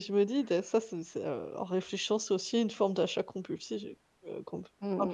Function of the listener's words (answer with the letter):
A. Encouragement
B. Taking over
B